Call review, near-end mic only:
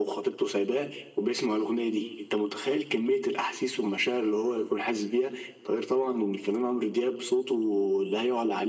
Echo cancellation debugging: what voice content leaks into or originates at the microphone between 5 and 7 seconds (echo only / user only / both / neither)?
echo only